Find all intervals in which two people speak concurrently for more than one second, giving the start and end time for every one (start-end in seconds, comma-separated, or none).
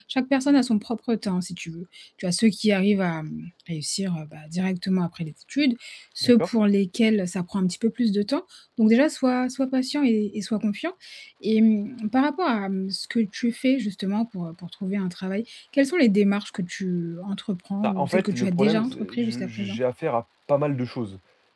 17.8-19.8